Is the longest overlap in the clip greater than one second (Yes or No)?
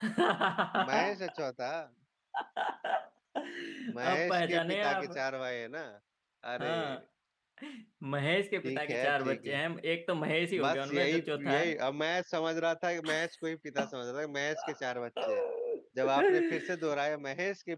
Yes